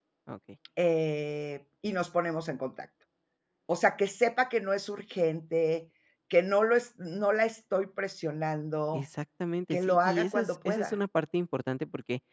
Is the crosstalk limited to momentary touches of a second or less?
No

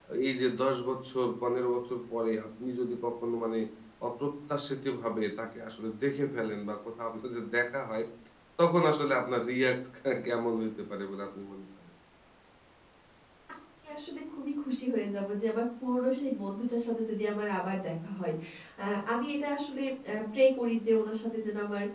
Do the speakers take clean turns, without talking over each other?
Yes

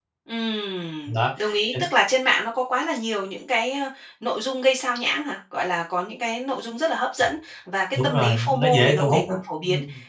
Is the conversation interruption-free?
No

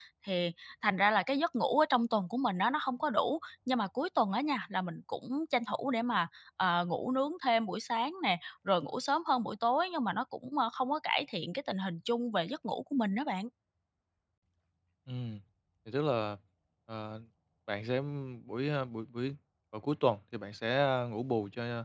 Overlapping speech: No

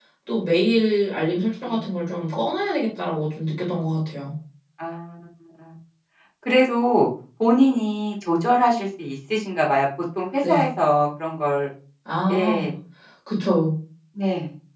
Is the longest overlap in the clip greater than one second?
No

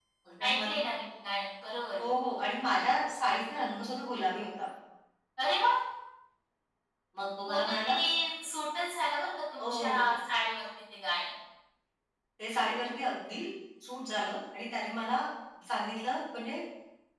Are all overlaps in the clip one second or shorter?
Yes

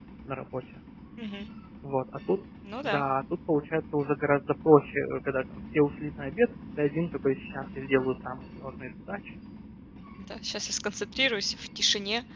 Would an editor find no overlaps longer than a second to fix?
Yes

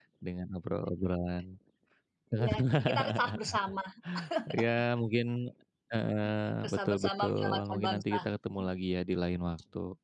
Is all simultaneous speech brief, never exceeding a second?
No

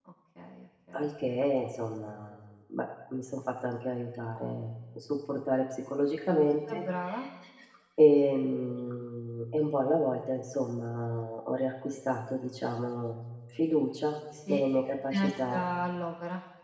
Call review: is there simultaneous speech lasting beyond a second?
No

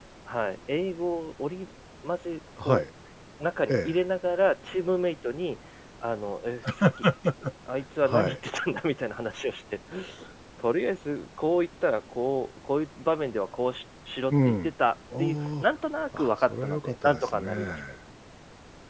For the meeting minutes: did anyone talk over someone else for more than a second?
Yes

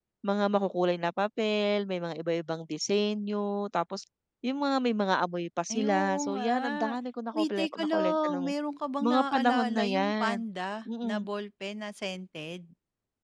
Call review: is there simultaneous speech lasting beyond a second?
Yes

